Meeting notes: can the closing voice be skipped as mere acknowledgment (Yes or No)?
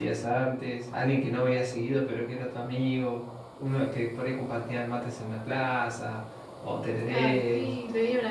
No